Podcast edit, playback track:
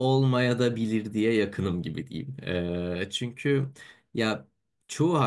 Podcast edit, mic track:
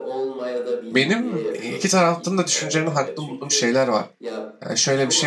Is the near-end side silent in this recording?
No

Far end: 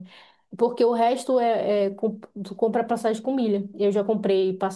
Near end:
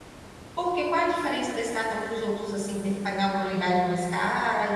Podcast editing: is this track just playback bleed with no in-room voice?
No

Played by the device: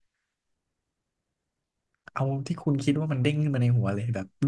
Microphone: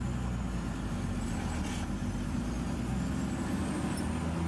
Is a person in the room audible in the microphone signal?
No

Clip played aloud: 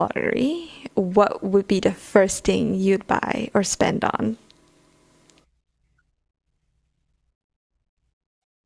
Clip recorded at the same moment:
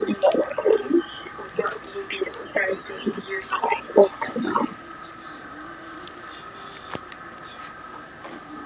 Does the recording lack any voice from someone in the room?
Yes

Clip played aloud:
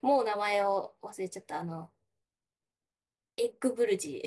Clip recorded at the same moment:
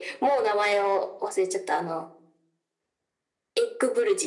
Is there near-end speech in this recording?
No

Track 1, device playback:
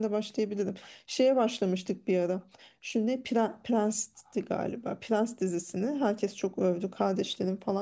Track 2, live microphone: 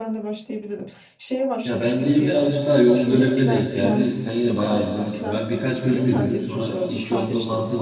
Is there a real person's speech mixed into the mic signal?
Yes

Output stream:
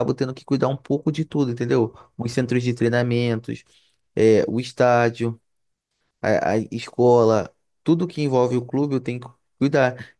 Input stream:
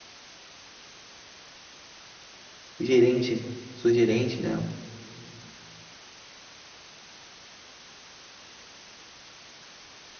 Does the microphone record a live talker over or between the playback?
Yes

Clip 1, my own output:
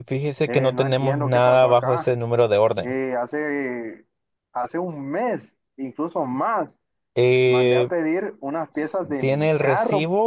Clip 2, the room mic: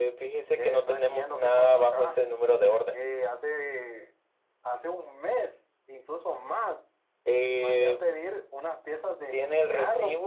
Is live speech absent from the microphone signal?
Yes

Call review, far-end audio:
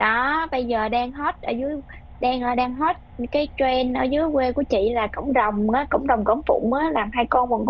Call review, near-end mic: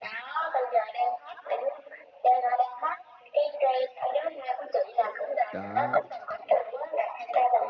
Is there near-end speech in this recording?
Yes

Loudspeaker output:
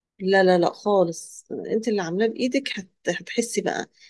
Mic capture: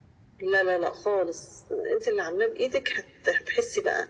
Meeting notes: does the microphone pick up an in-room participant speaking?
No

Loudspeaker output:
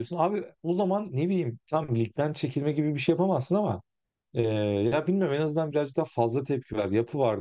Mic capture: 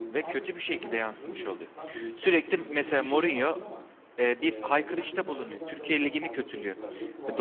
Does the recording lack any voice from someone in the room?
No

